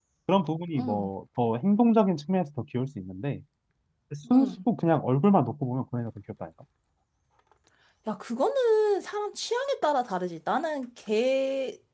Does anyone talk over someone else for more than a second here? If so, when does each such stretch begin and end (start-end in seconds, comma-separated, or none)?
none